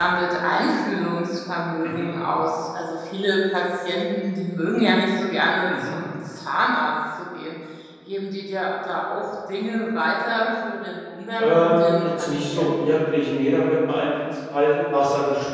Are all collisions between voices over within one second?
No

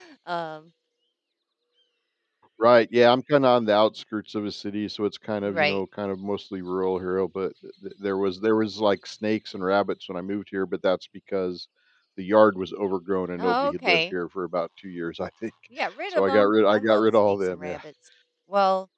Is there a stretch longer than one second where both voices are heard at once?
Yes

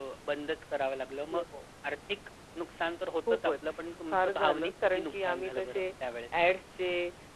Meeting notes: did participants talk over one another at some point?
Yes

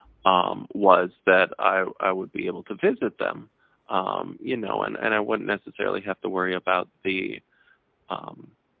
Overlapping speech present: No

